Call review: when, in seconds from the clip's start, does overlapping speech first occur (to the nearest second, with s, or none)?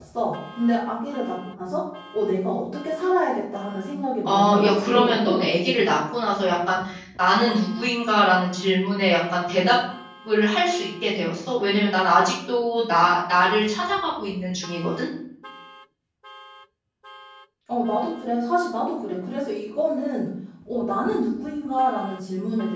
4 s